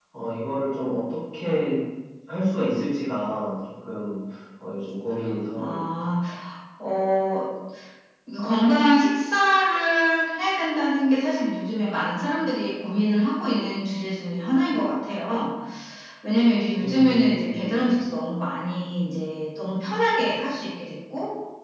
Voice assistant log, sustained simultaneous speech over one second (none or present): present